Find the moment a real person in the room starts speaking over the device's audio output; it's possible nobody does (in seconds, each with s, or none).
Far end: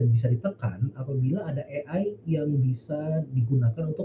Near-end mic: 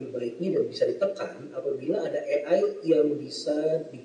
none